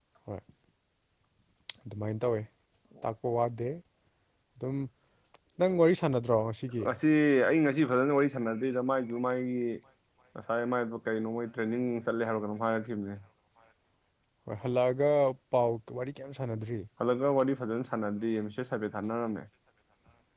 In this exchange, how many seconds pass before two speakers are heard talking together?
none

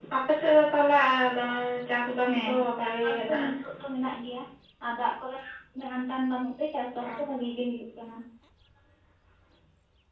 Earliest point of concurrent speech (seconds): 2 s

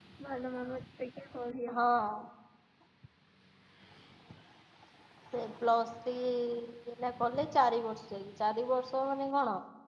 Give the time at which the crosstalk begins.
none

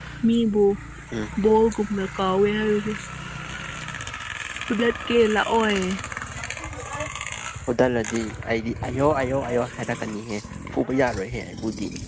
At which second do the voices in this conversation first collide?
none

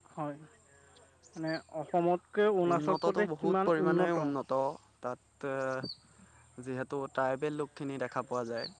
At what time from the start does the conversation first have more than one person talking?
3 s

